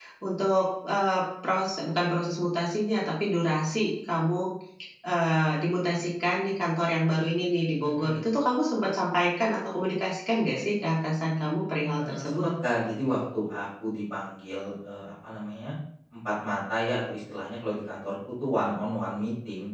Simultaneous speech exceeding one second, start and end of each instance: none

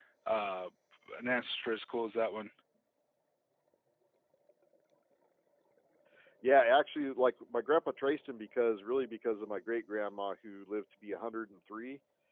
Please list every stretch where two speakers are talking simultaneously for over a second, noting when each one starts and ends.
none

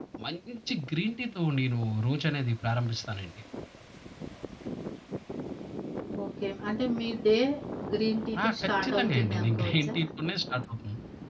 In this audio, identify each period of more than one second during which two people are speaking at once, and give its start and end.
8.4-9.9

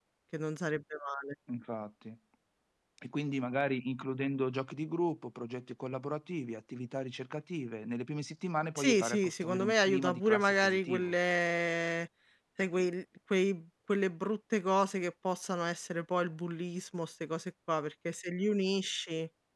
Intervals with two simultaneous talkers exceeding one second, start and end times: 8.8-11.1

